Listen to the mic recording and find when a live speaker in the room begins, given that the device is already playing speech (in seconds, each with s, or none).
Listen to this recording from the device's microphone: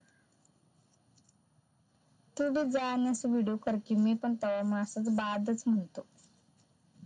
none